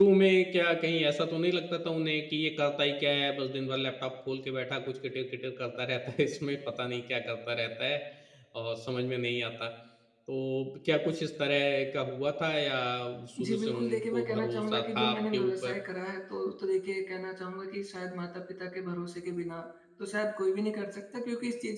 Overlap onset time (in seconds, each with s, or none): 13.4 s